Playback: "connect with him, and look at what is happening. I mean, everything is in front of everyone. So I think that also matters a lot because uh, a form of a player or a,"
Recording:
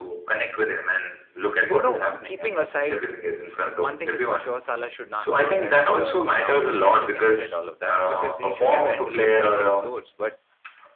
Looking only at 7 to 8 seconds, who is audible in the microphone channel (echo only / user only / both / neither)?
both